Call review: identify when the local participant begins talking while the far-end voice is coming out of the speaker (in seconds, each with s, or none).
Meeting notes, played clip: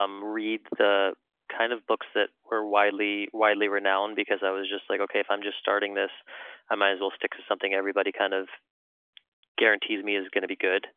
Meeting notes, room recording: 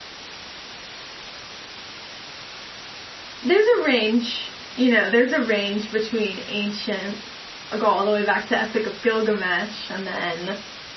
3.4 s